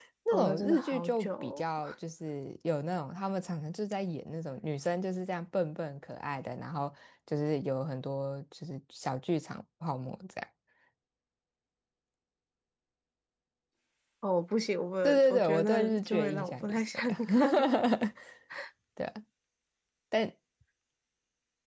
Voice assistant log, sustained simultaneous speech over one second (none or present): present